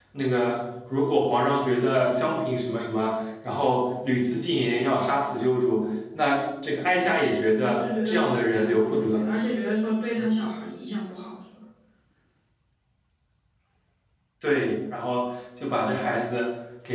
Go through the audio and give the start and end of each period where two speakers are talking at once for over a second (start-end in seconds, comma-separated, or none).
7.6-9.3